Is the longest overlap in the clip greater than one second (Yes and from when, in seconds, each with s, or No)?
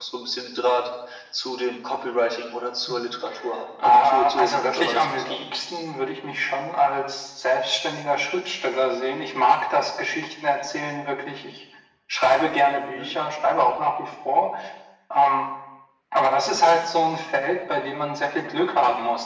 Yes, from 3.8 s